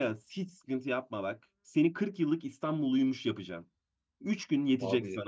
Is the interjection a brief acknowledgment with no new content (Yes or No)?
Yes